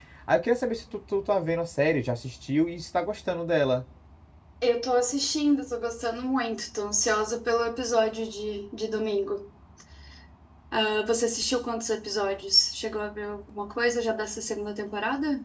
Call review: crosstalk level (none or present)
none